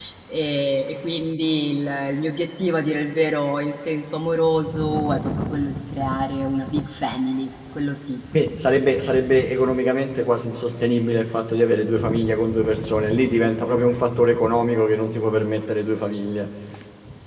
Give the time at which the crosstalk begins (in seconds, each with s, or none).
none